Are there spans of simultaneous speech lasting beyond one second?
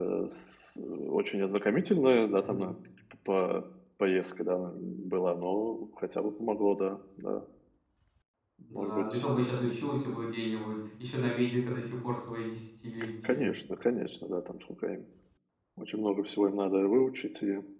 No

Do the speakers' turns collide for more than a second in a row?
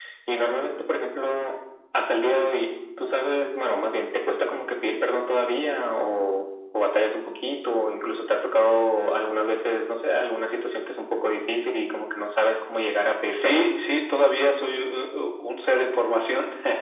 No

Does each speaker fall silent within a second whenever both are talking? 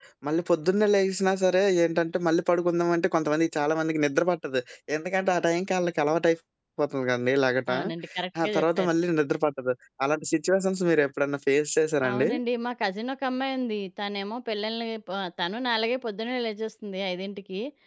Yes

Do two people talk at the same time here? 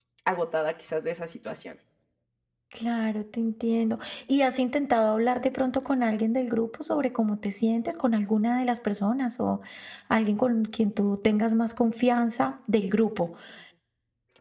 No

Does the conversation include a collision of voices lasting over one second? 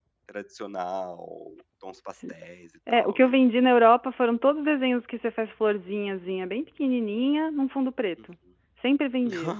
No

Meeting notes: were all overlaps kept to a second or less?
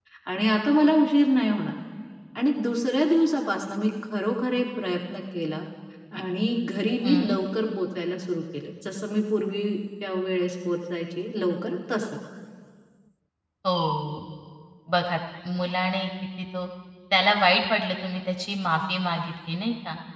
Yes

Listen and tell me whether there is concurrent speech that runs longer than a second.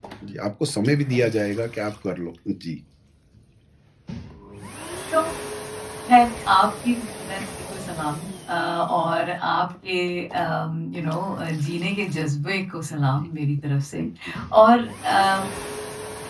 No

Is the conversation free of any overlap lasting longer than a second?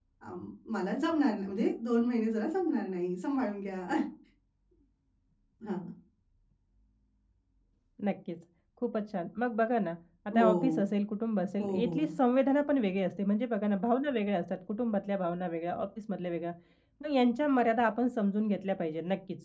Yes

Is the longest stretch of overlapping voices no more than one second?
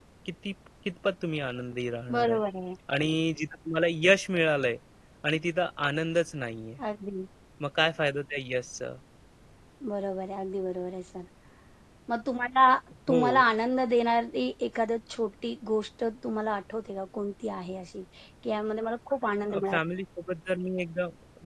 Yes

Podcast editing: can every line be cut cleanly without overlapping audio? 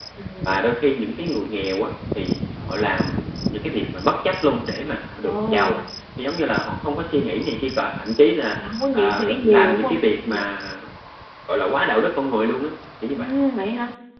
No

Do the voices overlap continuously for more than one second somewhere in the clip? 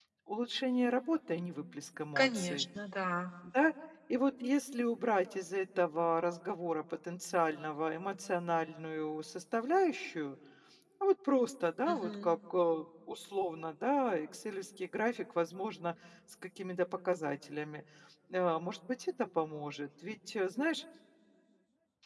No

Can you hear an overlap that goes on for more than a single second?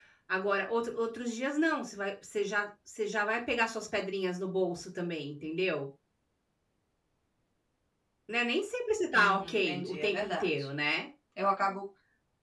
Yes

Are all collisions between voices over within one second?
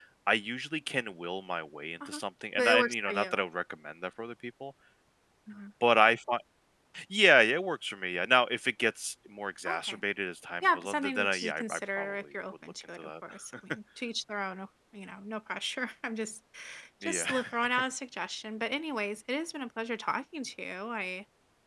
No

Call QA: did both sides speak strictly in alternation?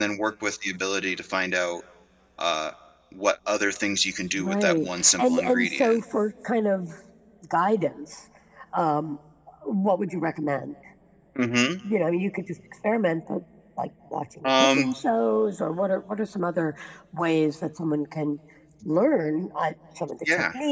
No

